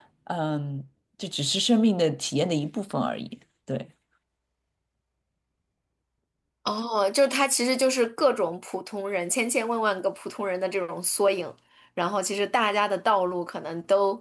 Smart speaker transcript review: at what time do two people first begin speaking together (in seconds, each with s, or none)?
none